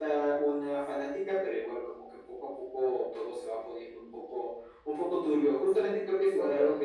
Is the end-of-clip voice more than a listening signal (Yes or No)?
No